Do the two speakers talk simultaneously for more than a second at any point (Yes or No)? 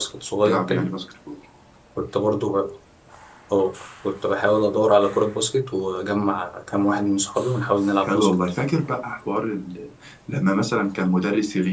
No